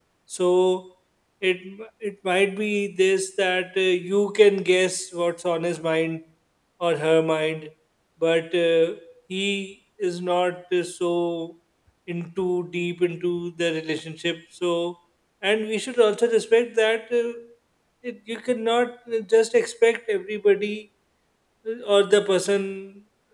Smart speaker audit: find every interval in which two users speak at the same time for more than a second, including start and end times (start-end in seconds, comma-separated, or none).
none